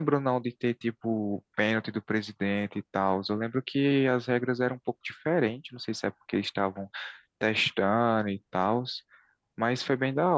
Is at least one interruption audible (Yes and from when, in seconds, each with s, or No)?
No